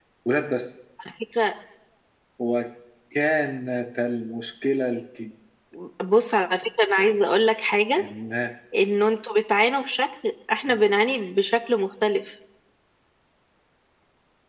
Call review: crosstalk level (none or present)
none